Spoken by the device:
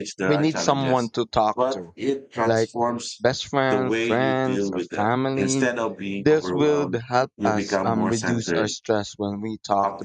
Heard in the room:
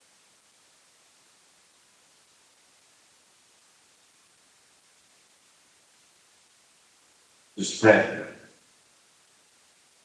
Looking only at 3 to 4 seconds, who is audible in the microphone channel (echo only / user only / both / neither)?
neither